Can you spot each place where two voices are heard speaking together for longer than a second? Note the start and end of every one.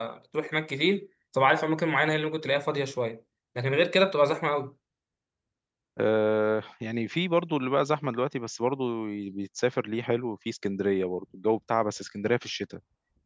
none

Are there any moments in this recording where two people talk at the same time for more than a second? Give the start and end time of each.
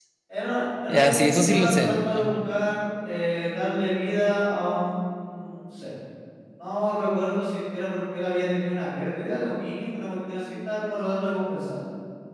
0.9-2.3

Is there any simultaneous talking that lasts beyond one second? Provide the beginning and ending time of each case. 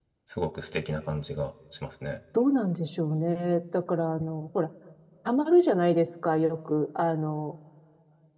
none

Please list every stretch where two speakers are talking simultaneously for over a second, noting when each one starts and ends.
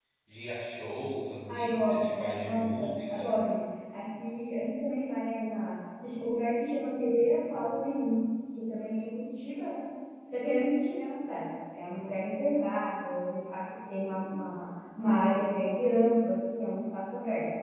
1.5-3.3

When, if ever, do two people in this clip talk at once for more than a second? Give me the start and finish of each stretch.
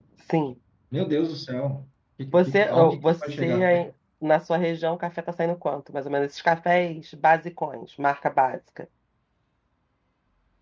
2.3-3.7

